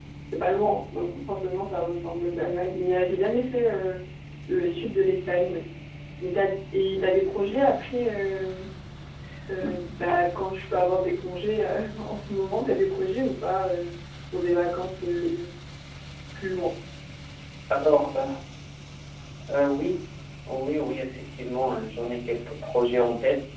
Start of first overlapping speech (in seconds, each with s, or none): none